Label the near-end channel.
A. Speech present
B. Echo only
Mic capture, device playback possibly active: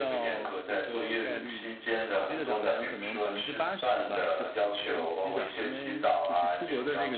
A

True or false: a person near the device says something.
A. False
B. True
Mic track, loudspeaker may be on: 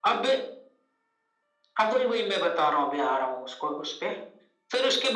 A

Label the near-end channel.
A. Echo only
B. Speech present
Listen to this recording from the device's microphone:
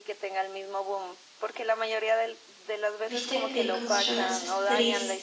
B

